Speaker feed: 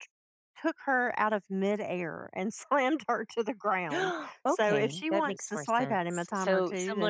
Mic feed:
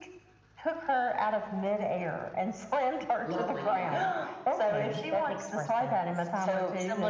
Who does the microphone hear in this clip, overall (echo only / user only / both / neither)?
both